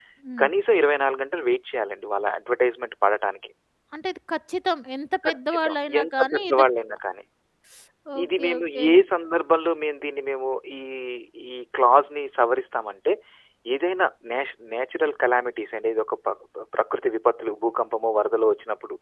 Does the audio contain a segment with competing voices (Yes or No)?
Yes